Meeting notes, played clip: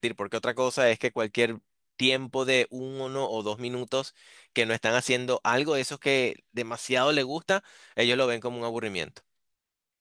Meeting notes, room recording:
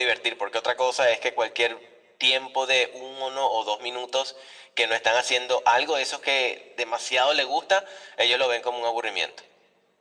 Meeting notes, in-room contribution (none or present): none